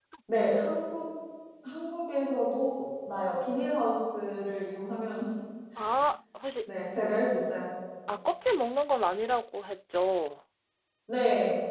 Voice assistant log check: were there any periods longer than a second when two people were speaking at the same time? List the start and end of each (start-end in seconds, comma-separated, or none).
none